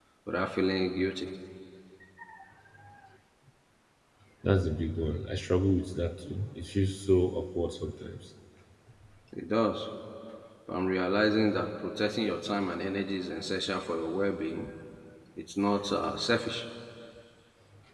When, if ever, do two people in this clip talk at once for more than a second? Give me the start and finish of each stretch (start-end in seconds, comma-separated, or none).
none